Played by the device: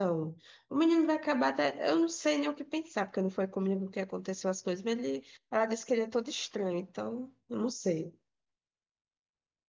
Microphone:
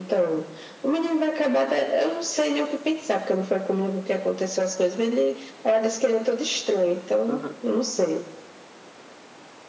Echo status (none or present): present